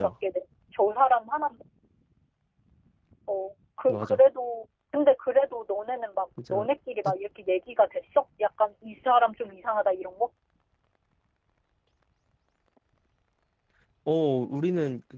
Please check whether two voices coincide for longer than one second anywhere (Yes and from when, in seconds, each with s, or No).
No